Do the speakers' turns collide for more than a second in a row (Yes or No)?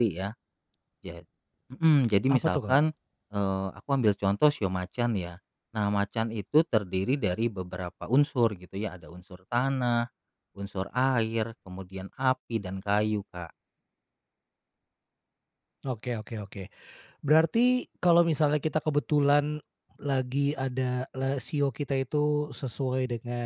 No